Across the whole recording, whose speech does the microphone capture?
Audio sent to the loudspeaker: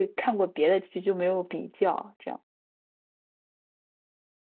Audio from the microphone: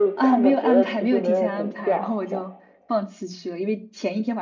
both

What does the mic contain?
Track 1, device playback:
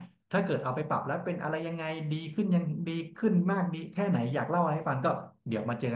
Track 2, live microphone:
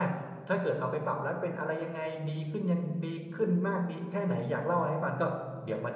echo only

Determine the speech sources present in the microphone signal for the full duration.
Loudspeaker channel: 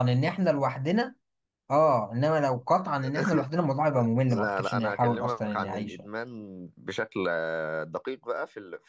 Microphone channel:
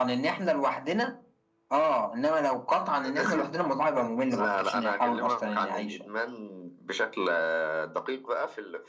echo only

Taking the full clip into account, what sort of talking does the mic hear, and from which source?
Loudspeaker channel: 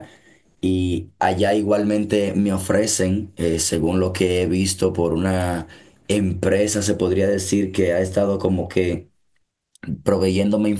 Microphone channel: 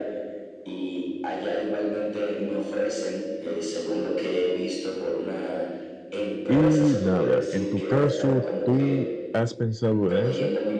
both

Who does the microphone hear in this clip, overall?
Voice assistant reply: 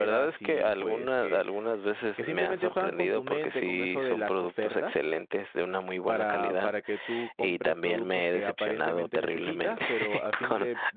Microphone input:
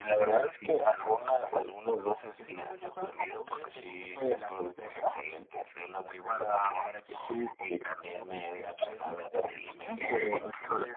echo only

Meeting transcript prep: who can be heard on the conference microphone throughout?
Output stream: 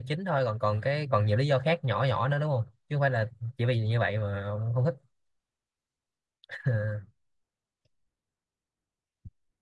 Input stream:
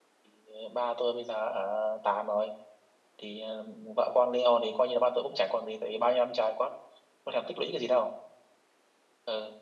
user only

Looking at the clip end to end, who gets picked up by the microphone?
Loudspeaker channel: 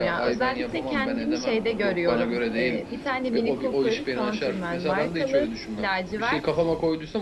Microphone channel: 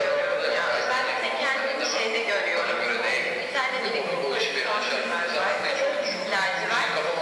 both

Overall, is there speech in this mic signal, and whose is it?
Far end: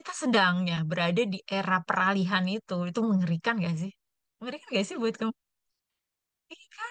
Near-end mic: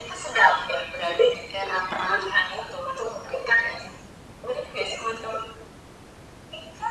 echo only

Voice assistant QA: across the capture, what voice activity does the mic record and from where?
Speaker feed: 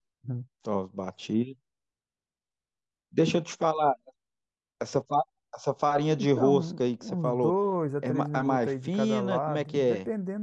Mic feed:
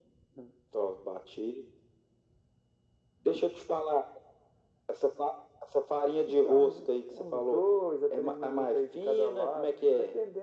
echo only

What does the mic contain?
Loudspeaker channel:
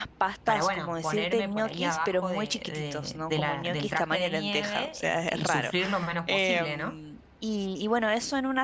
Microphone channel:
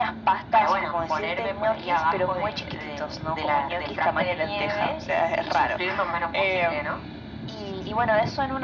echo only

